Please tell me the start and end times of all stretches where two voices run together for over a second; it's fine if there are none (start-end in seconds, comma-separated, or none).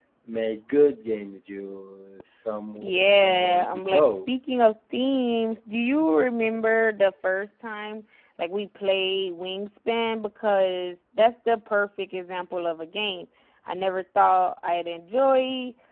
2.8-4.2